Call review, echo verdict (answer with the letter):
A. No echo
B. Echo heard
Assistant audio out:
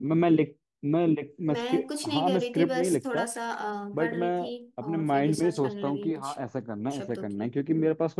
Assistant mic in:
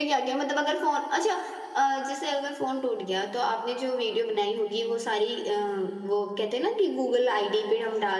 A